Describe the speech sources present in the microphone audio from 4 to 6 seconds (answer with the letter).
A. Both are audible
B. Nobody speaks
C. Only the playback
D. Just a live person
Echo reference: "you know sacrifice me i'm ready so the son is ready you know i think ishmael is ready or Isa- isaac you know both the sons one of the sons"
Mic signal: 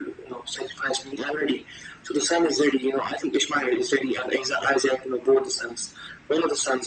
C